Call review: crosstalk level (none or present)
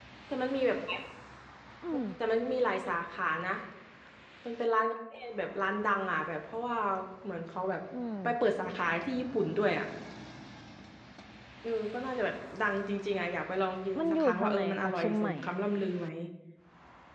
present